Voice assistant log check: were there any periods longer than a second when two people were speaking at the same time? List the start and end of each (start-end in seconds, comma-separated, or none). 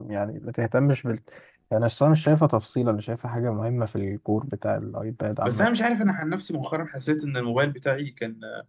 none